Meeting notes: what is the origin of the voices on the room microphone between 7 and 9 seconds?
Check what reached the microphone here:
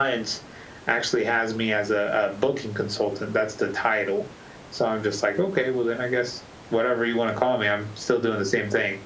echo only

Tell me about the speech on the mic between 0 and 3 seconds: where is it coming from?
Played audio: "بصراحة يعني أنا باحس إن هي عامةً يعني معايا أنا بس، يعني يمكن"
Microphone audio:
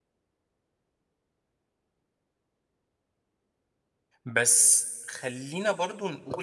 neither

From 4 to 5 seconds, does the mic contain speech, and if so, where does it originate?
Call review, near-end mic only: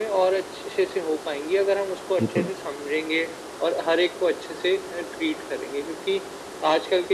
echo only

